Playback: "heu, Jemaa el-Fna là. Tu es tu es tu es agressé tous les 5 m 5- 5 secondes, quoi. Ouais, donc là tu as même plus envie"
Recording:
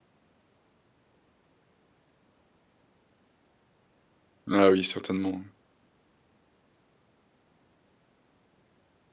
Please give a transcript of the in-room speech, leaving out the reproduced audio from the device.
Ah oui, certainement, oui.

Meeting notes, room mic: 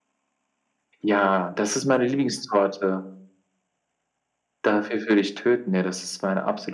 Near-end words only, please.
none

